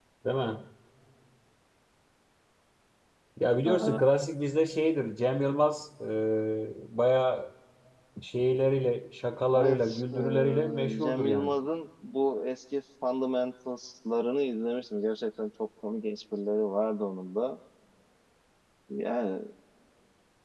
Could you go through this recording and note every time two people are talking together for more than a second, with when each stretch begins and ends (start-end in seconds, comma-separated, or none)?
9.6-11.5